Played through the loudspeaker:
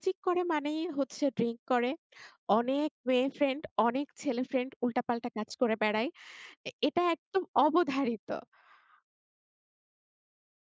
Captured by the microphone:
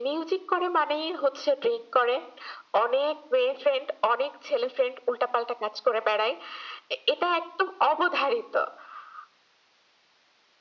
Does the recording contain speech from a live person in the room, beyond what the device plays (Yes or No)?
No